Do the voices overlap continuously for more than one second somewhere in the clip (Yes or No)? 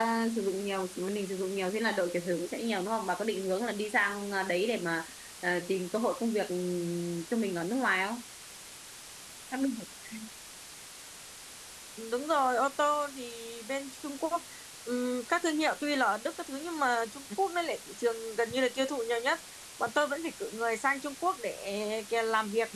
No